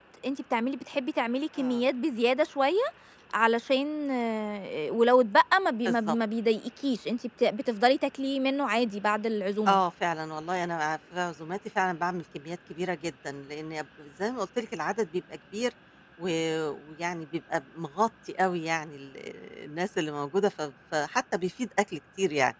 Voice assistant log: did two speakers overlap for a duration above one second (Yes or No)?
No